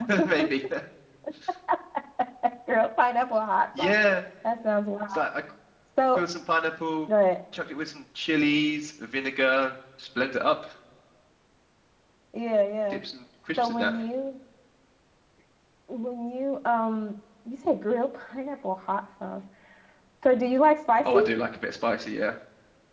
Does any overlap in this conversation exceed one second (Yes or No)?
No